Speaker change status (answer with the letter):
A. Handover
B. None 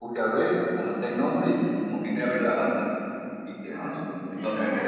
B